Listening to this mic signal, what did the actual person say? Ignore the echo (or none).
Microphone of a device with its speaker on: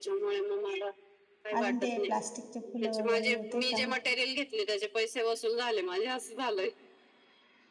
अजून ते प्लास्टिकचे फुलं वगैरे होते का